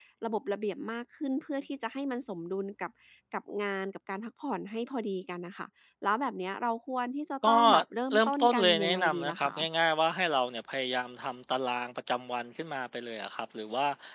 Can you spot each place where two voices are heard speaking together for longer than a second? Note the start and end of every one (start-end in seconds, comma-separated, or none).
8.1-9.6